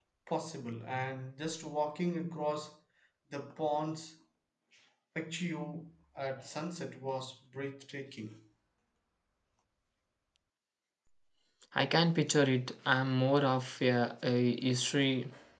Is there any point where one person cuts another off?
No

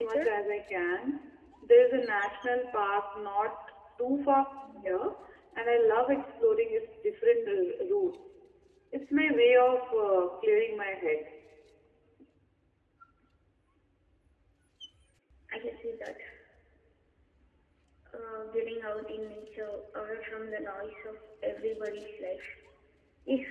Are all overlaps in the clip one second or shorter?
Yes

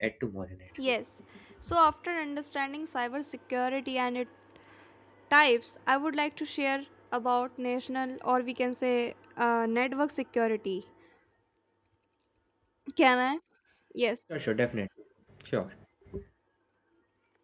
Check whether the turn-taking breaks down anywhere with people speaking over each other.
No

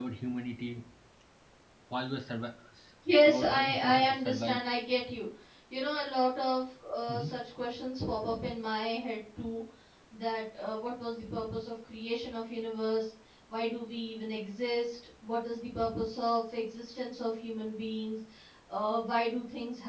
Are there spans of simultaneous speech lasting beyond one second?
Yes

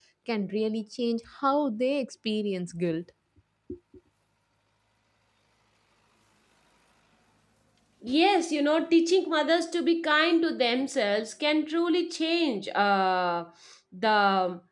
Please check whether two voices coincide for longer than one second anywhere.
No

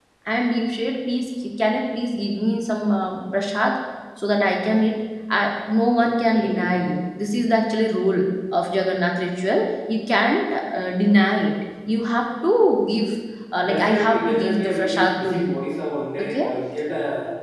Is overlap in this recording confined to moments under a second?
No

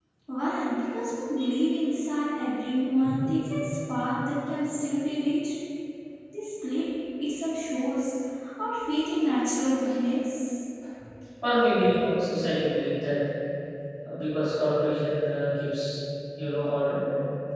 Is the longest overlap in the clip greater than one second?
No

